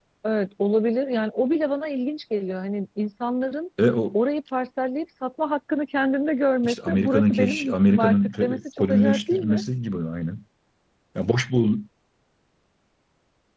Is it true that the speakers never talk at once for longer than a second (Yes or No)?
No